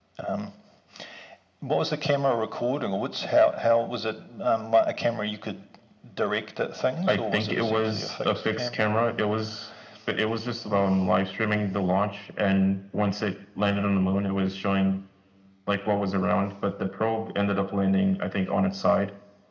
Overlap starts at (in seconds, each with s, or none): 7.1 s